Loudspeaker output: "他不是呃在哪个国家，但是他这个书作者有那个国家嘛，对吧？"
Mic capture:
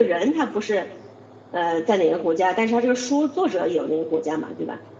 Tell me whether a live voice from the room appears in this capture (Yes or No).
No